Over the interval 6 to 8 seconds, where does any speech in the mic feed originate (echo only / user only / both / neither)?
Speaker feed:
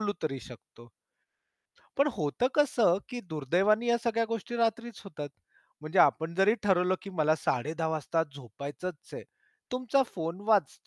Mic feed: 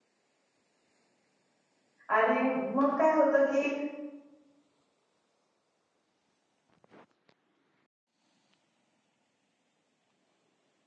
neither